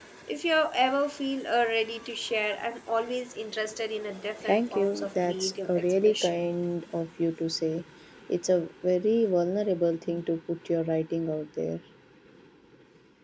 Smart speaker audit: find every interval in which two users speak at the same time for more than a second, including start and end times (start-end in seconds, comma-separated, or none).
4.5-6.4